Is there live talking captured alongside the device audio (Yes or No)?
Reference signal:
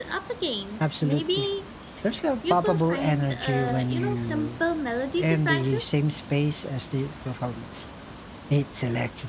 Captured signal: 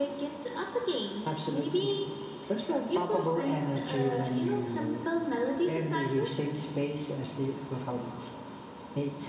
No